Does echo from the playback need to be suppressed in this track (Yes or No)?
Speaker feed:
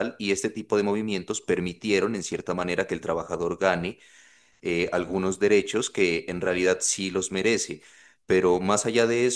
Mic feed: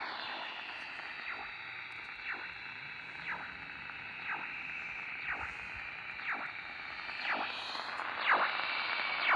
No